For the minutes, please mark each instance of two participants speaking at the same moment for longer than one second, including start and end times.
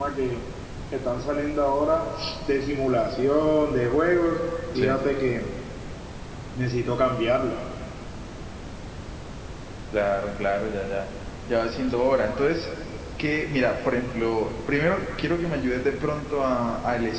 none

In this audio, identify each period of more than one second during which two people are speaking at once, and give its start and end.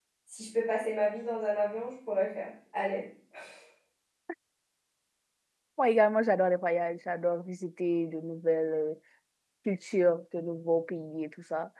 none

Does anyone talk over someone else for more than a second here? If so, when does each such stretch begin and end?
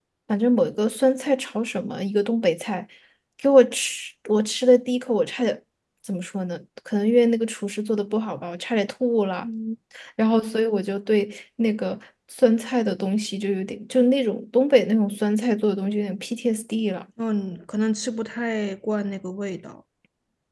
none

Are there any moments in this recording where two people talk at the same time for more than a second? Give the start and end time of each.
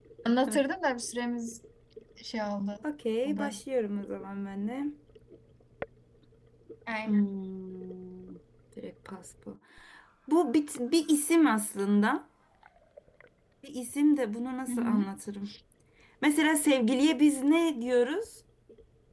none

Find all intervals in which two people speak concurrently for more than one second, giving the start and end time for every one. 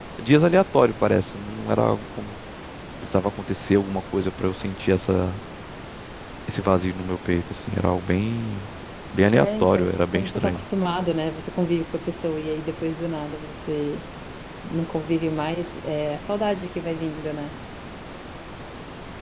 9.3-10.6

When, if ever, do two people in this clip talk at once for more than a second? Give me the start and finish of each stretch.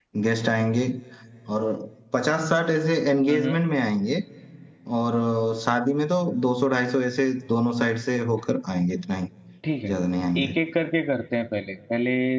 none

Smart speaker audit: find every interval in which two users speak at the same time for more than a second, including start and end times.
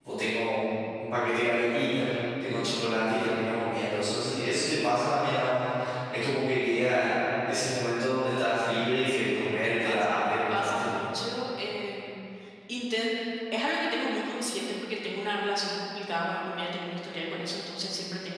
9.5-10.9

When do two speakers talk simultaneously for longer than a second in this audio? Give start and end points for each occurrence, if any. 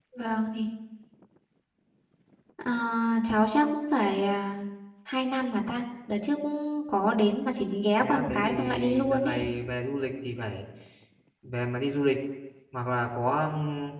8.0-9.4

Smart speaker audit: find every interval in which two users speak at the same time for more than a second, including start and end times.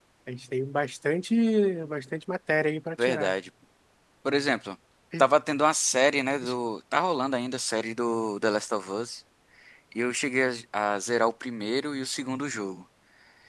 none

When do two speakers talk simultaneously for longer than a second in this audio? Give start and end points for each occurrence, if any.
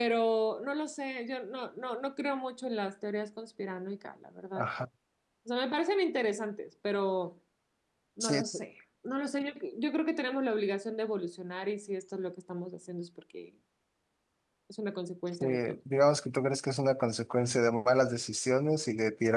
none

